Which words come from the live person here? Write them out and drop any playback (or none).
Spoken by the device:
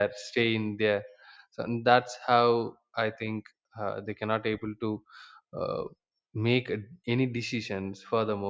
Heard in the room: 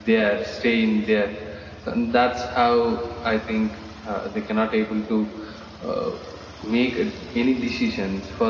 none